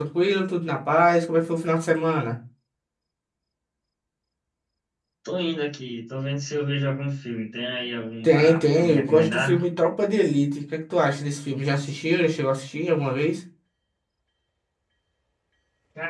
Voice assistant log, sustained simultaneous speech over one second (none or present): present